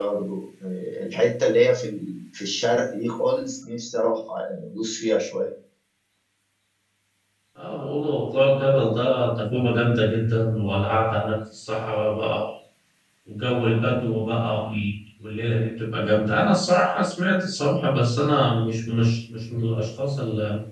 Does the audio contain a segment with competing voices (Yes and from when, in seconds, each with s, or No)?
No